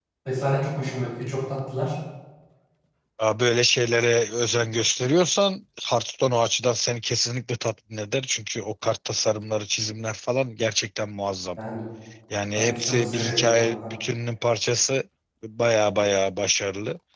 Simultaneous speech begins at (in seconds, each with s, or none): 12.6 s